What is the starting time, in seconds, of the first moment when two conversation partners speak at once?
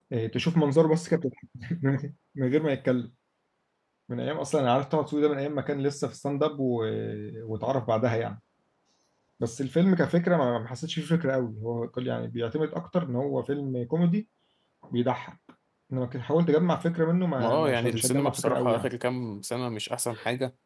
17.4 s

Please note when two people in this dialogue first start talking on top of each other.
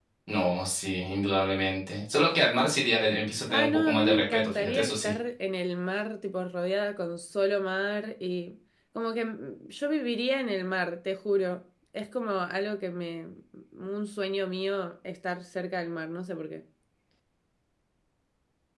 3.5 s

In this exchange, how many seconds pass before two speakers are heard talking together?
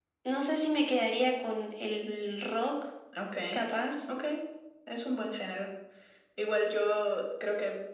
none

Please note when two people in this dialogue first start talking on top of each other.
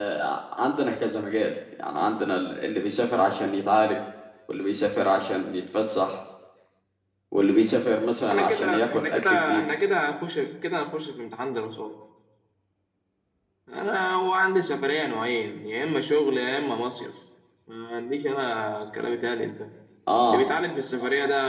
8.2 s

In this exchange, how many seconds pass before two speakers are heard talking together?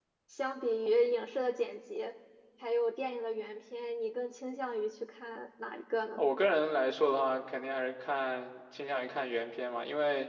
none

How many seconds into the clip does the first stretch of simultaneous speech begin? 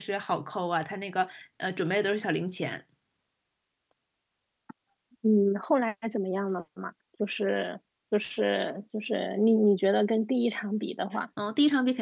none

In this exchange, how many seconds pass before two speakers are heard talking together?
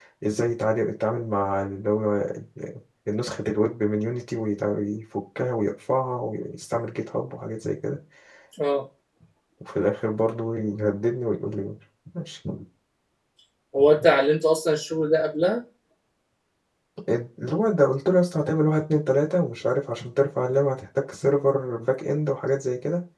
none

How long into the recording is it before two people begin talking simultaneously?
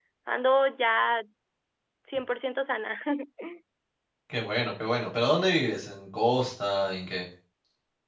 none

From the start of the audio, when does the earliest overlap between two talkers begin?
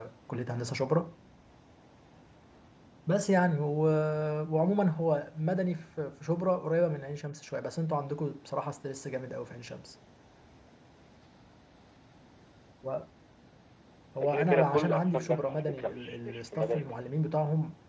14.2 s

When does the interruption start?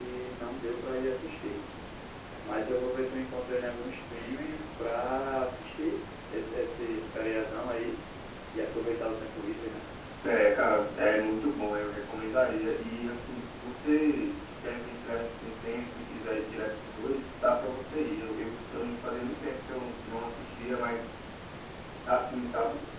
none

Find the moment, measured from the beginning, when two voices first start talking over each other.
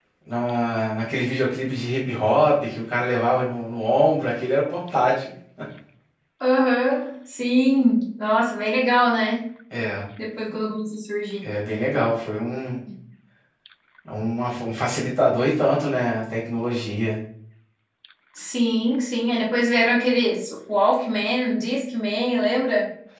none

